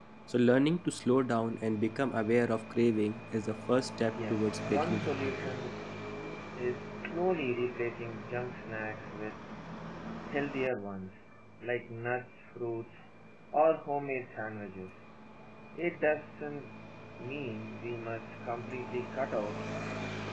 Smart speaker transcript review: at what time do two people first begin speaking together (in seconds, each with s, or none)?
4.1 s